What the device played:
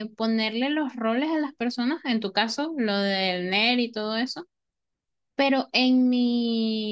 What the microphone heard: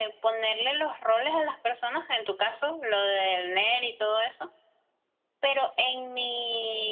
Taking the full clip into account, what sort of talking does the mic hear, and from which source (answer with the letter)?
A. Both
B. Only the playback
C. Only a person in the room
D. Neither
B